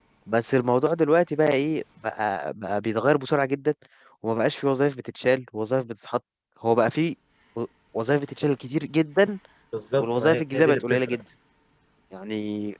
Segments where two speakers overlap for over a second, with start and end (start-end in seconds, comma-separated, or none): 10.0-11.2